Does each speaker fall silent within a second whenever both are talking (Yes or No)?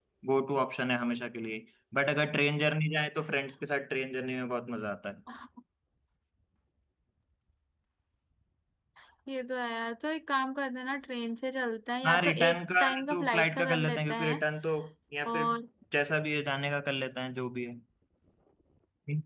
No